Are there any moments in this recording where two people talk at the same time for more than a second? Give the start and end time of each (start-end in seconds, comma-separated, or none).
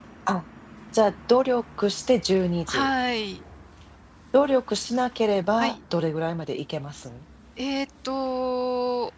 none